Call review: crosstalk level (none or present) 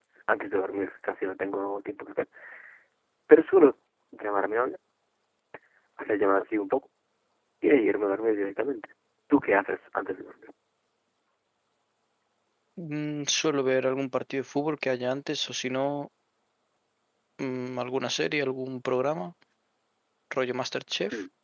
none